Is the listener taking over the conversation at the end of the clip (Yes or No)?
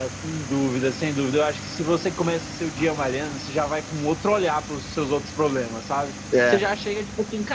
No